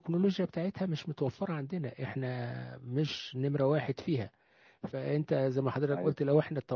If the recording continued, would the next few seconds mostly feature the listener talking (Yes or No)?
No